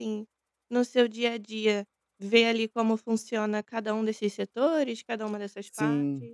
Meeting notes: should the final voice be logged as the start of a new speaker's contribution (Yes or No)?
Yes